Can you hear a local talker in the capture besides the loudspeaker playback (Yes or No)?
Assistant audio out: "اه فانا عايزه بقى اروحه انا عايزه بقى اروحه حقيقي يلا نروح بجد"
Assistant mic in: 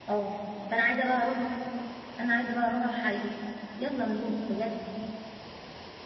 No